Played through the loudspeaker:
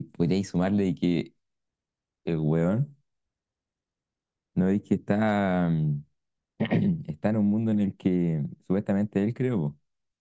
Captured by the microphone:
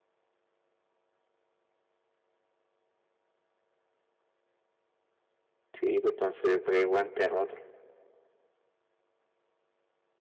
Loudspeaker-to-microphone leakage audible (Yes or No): No